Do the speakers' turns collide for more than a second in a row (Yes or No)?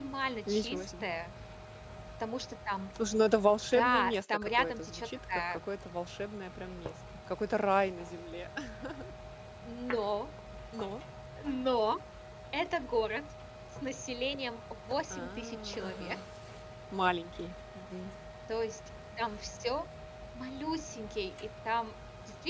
Yes